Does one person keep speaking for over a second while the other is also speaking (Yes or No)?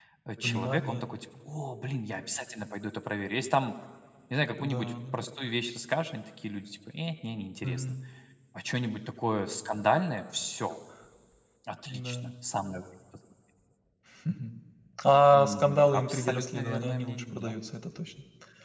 Yes